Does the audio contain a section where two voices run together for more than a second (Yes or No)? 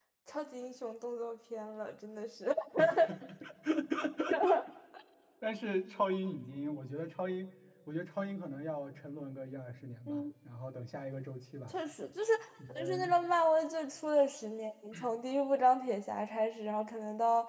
No